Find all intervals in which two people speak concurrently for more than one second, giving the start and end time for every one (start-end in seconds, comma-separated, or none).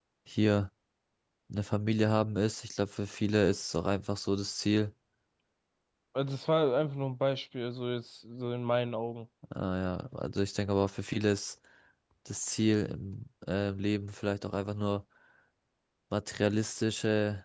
none